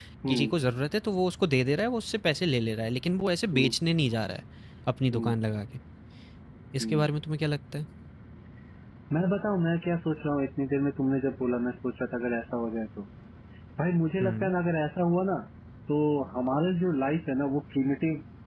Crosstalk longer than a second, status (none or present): none